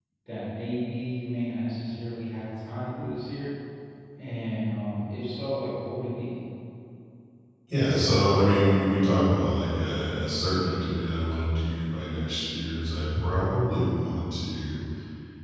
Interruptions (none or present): none